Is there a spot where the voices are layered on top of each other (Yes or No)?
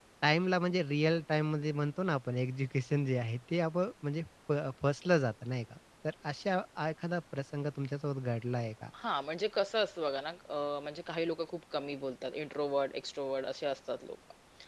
No